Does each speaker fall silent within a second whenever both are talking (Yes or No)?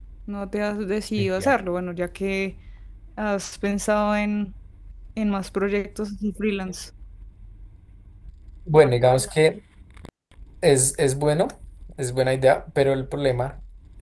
Yes